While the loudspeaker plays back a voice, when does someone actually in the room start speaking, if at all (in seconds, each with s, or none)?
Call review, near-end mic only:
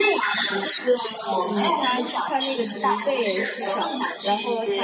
1.4 s